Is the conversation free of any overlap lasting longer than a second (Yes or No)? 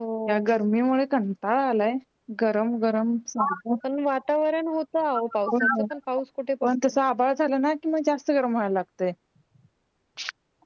Yes